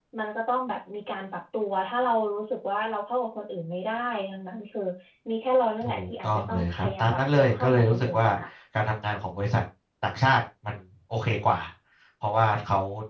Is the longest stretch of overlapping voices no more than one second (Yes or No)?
No